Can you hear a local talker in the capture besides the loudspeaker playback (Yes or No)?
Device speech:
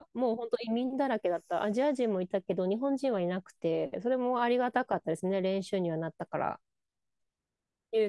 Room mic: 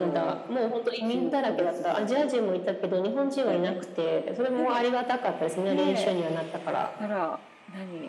Yes